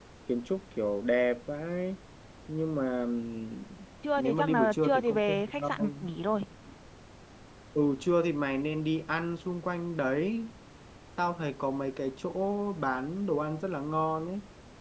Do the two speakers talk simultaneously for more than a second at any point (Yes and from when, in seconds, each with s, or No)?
Yes, from 4.2 s